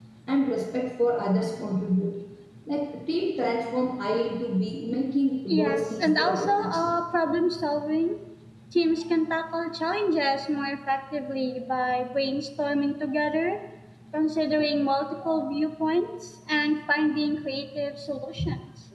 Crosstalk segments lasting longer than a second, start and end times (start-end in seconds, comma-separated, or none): 5.5-6.9